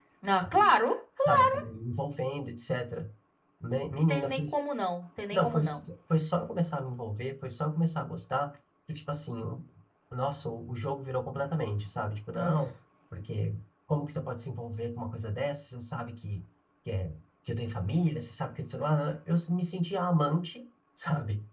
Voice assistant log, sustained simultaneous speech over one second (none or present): none